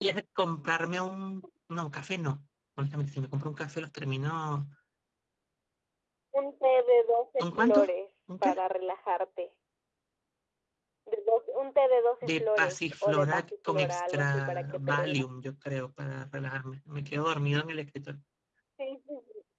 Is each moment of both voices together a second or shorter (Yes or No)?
No